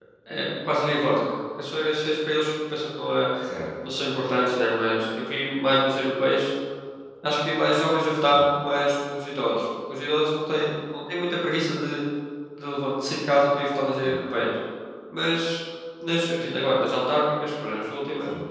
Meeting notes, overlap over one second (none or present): none